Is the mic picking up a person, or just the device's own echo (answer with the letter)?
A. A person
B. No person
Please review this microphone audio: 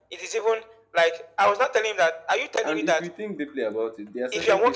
A